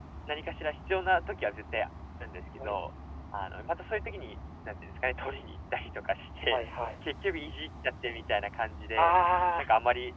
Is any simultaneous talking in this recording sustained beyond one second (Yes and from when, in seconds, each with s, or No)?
No